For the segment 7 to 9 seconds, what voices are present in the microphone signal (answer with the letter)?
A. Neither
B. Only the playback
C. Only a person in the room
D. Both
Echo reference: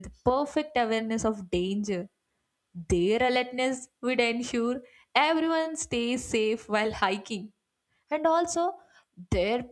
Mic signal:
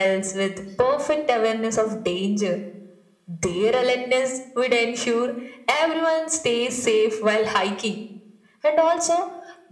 B